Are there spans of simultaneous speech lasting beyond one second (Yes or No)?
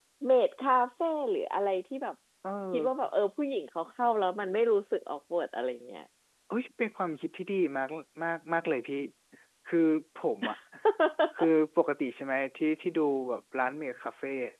No